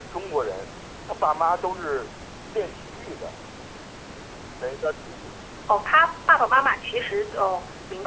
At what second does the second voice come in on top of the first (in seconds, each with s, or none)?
none